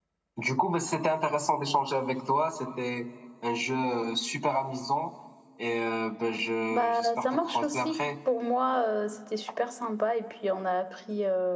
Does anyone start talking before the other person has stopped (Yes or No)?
Yes